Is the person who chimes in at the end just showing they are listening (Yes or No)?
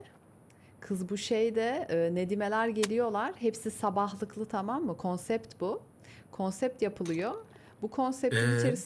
Yes